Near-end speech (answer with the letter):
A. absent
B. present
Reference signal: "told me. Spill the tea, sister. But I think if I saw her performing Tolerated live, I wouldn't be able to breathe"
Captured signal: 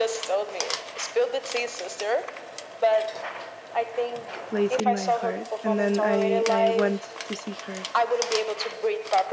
B